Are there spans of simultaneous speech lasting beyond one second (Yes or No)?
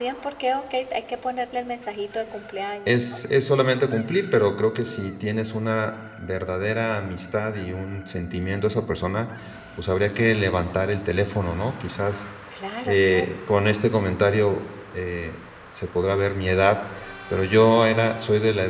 No